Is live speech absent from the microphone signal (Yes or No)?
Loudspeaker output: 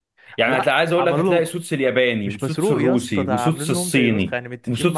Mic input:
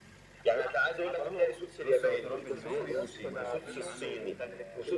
No